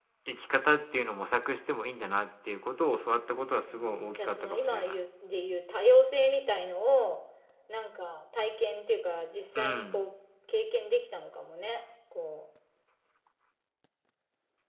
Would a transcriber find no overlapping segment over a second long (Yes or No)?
No